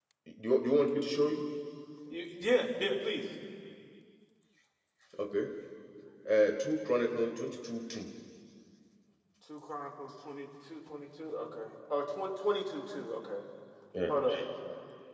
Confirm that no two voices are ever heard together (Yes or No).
Yes